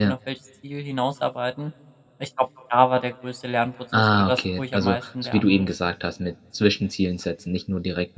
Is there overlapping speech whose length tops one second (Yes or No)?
Yes